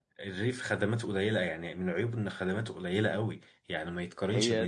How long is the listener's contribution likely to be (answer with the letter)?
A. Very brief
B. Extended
A